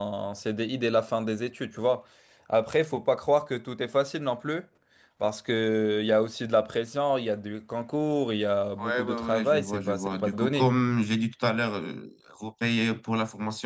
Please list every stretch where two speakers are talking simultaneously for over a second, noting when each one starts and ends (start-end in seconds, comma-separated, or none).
8.8-10.7